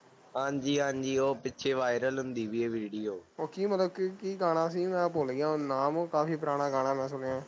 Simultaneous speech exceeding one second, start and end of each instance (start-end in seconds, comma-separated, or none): none